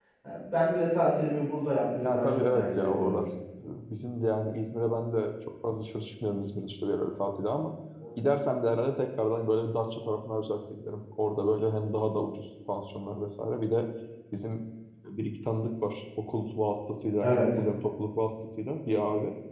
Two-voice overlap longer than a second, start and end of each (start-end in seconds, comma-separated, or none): 2.0-3.2